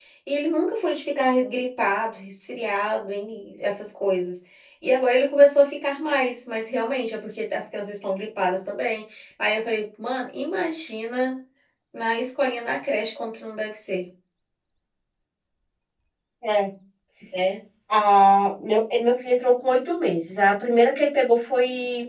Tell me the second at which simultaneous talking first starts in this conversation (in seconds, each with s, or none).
none